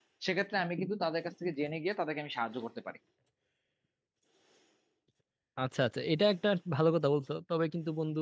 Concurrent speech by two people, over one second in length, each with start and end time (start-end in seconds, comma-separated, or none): none